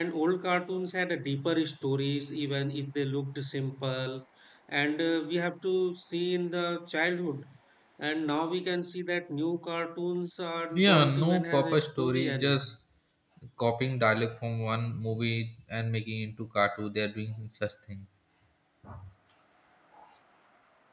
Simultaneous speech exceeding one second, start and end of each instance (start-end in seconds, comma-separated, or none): 10.8-12.6